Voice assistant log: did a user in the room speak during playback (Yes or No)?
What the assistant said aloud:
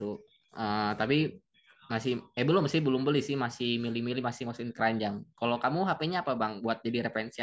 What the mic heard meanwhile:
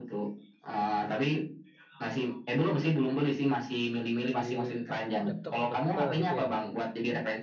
Yes